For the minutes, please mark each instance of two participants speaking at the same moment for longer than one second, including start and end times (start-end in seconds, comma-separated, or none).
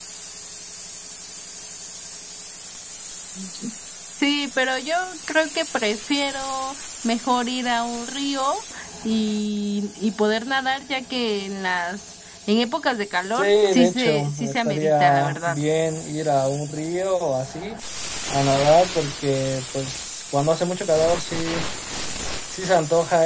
13.3-15.6